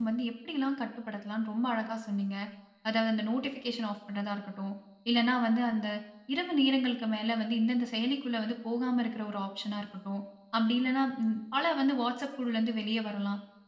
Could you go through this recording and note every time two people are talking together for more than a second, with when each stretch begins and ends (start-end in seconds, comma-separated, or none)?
none